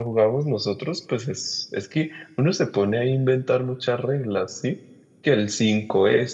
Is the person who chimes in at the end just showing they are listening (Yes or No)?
Yes